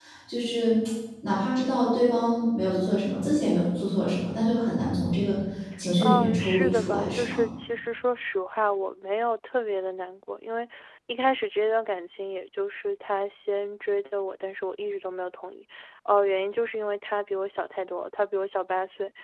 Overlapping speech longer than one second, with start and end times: 6.0-7.4

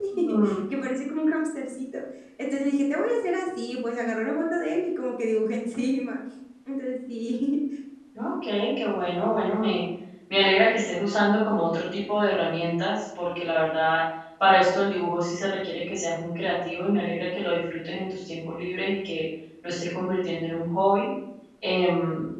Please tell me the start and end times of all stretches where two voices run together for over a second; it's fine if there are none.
none

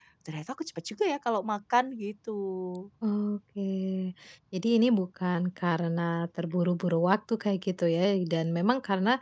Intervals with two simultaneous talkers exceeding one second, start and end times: none

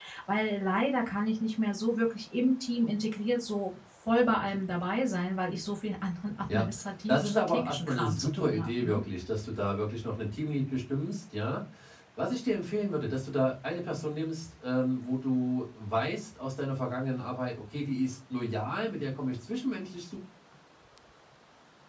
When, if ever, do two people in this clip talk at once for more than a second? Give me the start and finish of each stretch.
7.1-8.9

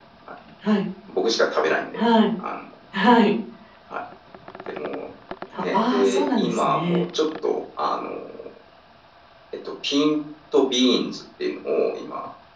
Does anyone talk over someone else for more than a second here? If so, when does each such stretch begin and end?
5.7-7.0

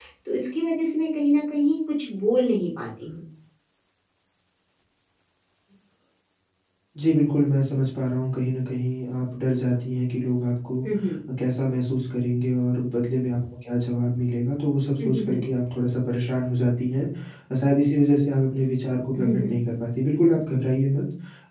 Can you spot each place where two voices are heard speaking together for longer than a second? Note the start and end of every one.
none

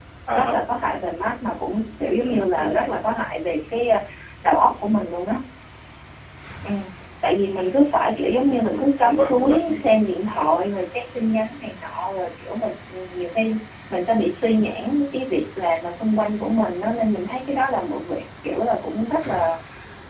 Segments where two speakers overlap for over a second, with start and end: 8.4-9.8

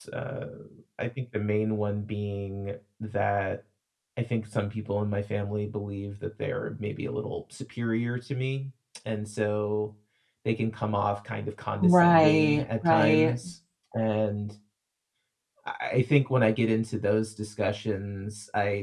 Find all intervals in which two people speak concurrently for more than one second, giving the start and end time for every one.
11.8-13.3

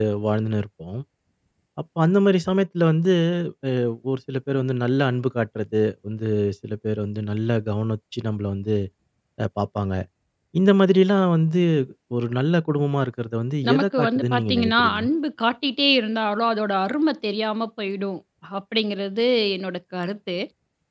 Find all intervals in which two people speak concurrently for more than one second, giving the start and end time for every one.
13.7-15.0

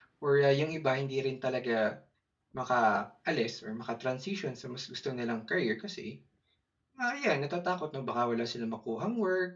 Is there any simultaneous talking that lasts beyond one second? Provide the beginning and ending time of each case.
none

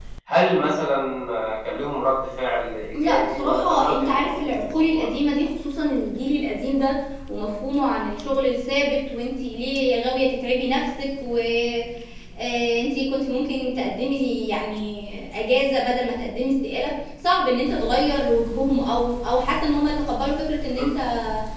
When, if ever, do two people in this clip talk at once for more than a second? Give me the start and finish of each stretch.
2.9-5.1

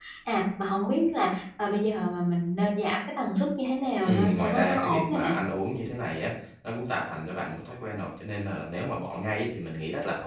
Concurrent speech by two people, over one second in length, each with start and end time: 4.0-5.3

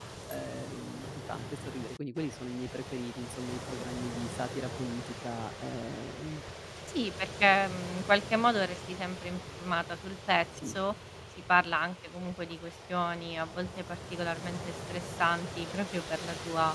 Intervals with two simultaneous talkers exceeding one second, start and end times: none

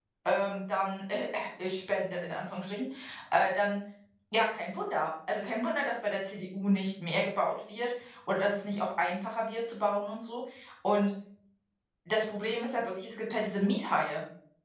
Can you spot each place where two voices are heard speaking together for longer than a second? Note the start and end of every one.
none

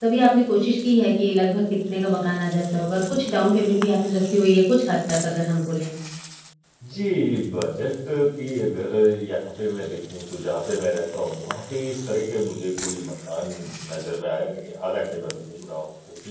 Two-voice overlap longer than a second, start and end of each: none

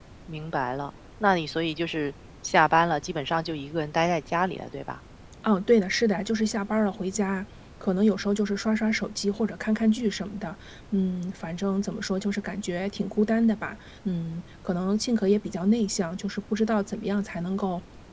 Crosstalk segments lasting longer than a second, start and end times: none

